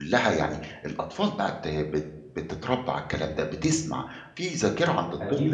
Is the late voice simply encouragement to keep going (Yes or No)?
No